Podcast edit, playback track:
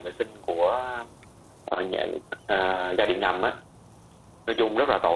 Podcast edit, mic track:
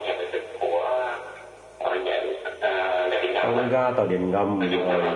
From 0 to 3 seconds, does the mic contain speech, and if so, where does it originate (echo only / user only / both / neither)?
echo only